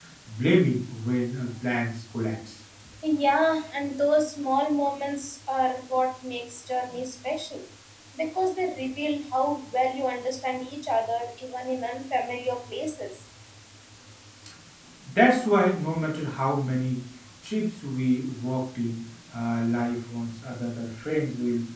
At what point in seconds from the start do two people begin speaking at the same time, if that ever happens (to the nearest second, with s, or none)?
none